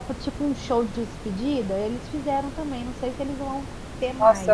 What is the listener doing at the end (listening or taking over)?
taking over